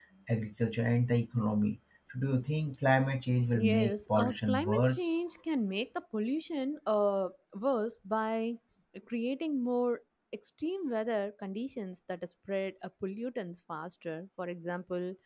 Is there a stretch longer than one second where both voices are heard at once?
Yes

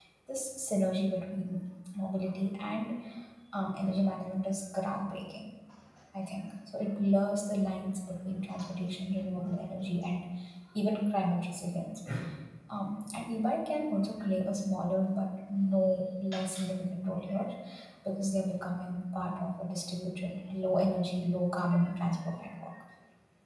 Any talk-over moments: No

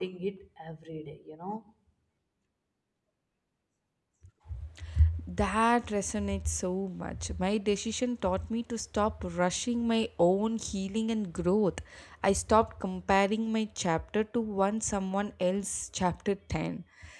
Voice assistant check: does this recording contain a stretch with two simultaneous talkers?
No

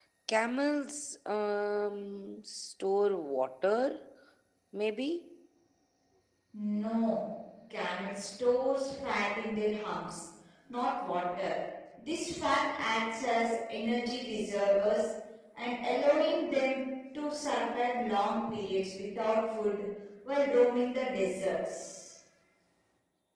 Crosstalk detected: No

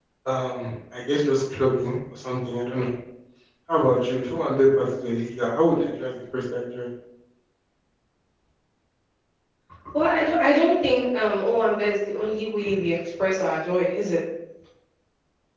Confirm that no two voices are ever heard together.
Yes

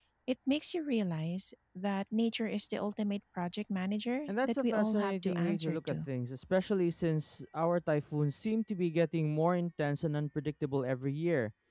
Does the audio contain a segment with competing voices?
Yes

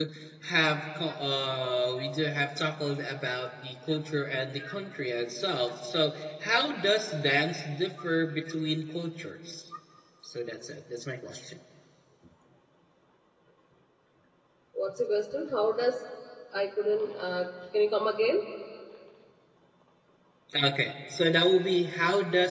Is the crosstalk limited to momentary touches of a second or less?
Yes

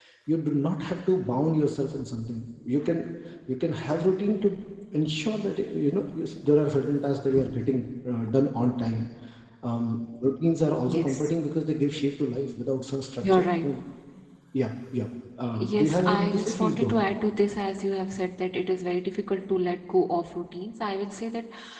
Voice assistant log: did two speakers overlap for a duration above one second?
Yes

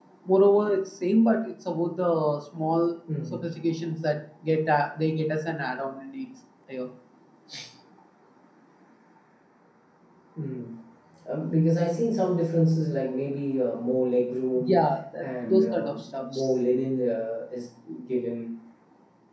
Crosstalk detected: Yes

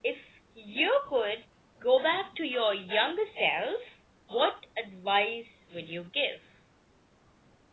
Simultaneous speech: No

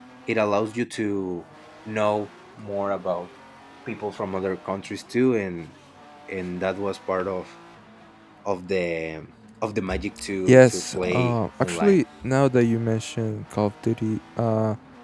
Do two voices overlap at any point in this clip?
Yes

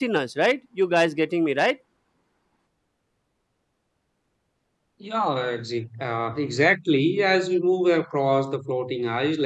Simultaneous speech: No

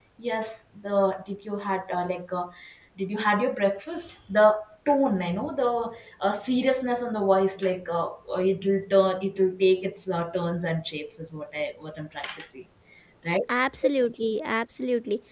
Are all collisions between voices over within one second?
Yes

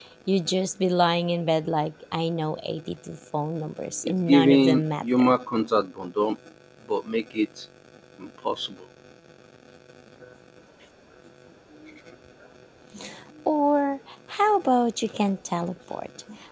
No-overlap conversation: No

